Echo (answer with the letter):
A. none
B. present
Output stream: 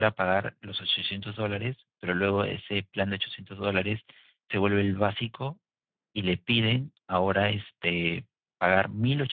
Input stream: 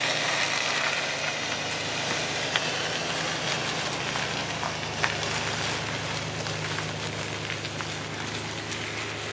A